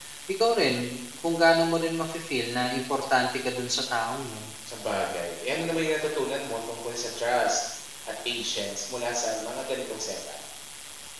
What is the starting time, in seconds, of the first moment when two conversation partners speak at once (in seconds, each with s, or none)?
none